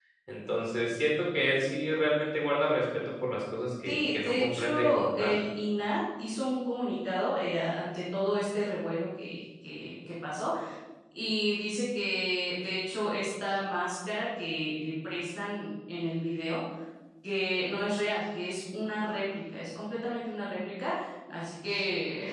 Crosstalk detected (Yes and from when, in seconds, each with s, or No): Yes, from 3.8 s